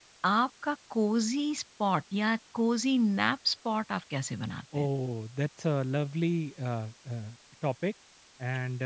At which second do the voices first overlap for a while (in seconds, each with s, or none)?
none